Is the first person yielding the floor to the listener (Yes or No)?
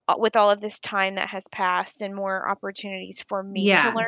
No